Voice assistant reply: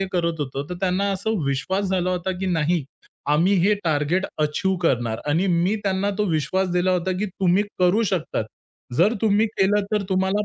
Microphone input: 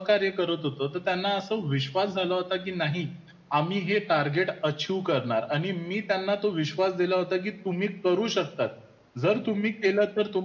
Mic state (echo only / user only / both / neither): echo only